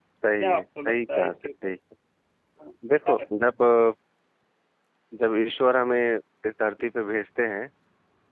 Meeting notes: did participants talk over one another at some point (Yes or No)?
Yes